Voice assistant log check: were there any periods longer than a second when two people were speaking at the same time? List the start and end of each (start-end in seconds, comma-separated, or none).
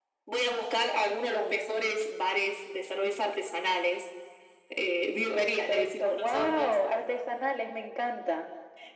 5.3-6.8